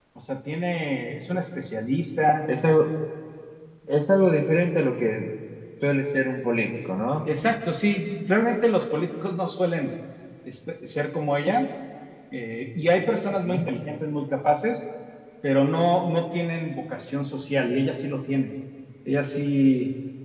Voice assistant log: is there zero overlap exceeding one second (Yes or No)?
Yes